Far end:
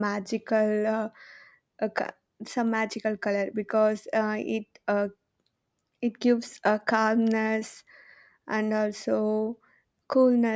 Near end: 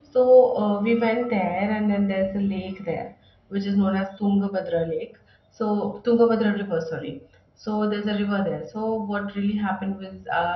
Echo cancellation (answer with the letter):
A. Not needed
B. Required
A